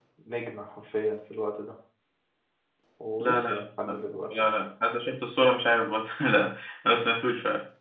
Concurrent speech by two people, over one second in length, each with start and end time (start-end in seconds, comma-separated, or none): 3.2-4.7